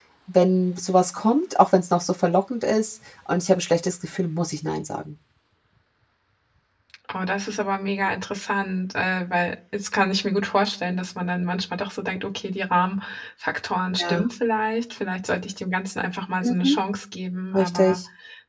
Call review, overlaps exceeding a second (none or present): none